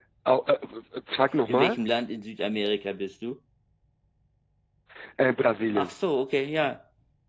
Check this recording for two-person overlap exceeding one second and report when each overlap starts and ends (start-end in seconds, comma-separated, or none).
none